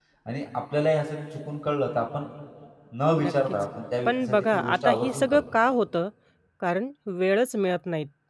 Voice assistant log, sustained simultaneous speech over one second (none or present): present